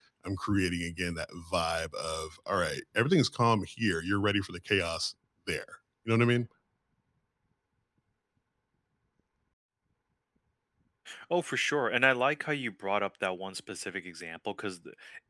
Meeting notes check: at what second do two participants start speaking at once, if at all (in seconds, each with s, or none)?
none